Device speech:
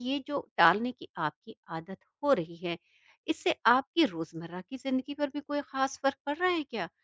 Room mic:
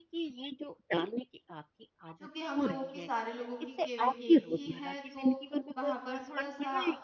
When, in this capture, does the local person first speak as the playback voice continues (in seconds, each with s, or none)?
2.2 s